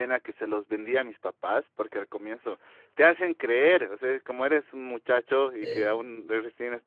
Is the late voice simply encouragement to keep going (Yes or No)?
Yes